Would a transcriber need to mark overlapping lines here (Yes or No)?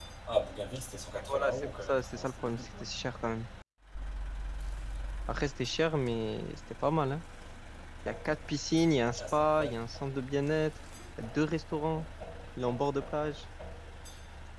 Yes